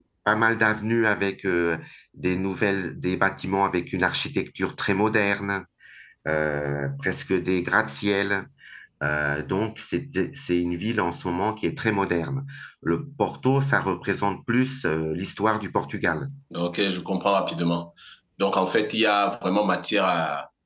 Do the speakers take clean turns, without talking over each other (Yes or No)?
Yes